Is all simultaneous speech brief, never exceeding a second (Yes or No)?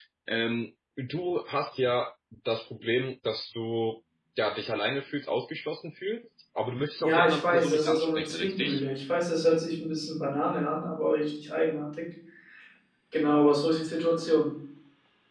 No